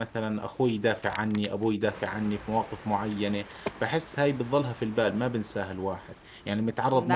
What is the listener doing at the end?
listening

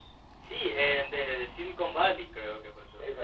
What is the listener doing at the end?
taking over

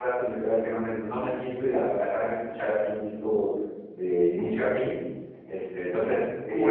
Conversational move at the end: taking over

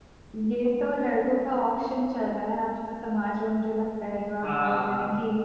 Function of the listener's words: listening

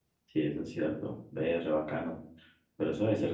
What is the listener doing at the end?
listening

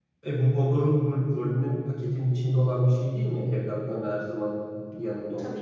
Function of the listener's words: listening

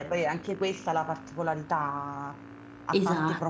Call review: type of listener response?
listening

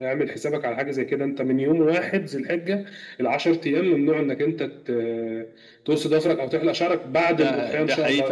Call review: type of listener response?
taking over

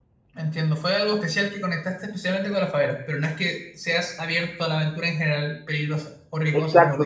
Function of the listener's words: taking over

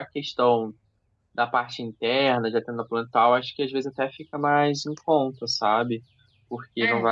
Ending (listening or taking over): listening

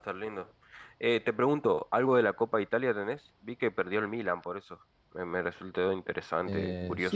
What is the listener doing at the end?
taking over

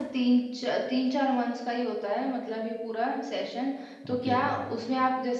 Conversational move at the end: listening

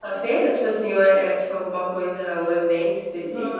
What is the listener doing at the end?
taking over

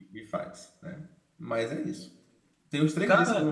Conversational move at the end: listening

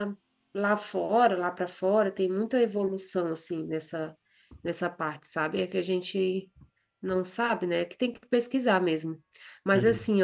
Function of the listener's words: listening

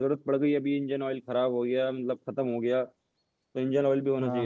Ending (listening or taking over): taking over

